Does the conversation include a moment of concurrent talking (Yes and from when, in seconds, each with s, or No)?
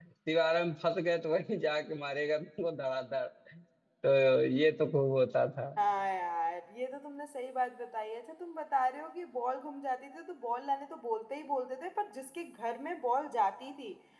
No